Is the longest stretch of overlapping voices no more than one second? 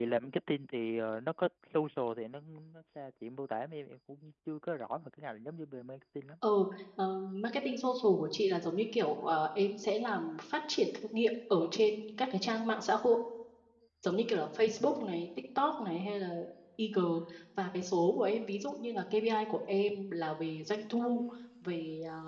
Yes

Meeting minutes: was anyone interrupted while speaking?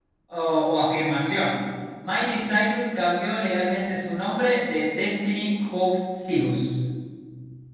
No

